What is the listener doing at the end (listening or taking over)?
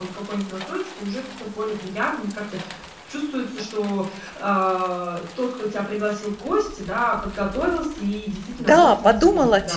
taking over